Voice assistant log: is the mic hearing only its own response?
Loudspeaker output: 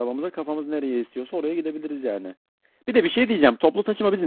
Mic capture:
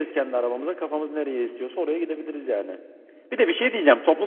Yes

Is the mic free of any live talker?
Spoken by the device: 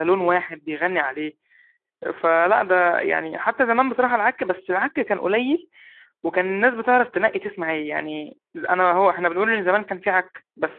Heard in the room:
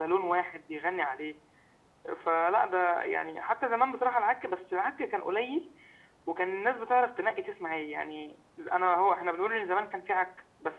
Yes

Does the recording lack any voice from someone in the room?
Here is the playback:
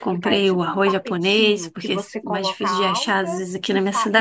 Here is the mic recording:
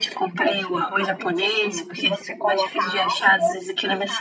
No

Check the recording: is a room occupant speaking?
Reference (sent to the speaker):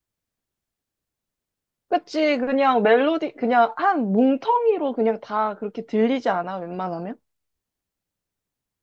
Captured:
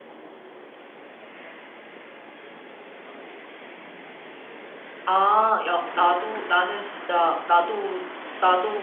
Yes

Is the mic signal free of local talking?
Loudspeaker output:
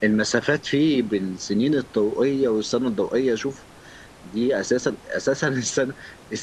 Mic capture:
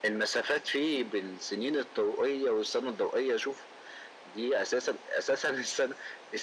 Yes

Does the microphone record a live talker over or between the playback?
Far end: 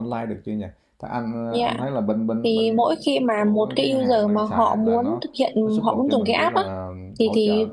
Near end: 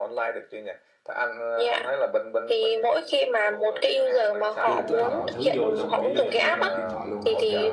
Yes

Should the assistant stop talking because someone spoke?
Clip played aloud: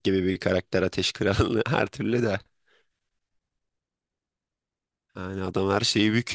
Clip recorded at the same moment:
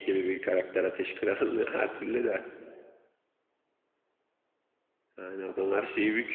No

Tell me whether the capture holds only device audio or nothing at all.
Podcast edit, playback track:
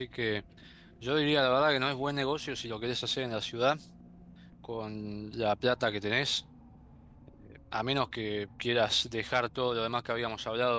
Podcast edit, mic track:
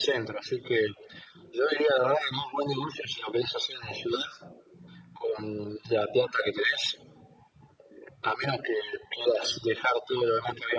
Yes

